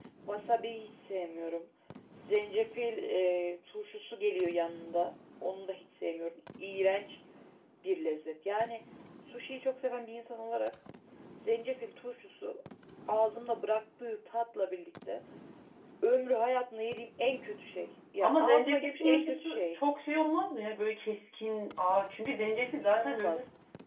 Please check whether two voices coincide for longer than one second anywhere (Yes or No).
Yes